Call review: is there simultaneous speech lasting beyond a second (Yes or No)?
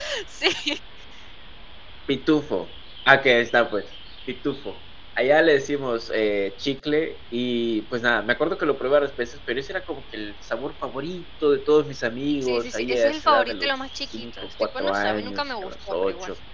Yes